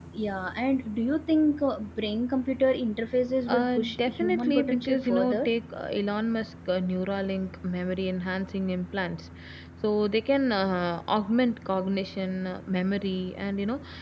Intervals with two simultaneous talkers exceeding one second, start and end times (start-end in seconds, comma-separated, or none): 3.5-5.5